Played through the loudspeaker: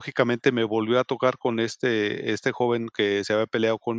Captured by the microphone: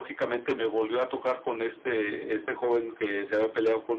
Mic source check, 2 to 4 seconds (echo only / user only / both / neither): echo only